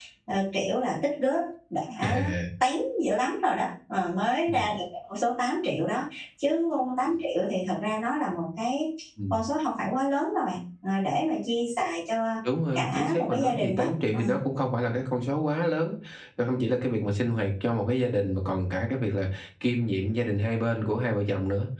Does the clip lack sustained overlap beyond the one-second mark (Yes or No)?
No